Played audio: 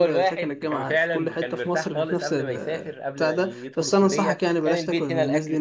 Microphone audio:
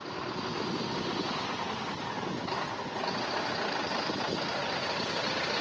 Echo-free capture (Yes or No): Yes